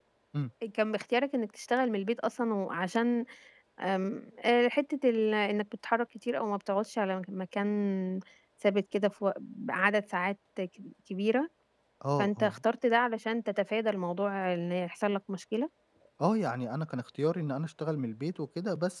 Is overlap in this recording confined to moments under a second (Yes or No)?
Yes